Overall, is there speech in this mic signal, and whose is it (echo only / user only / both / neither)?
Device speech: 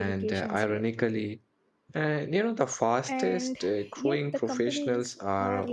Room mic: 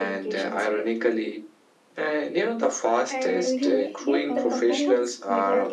both